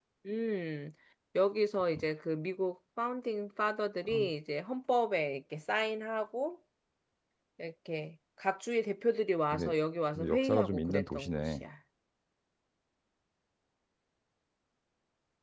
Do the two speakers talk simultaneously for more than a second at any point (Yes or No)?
Yes